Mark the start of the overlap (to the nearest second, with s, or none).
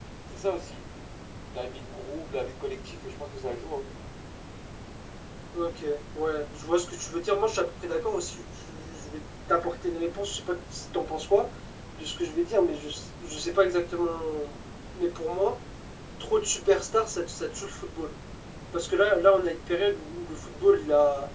none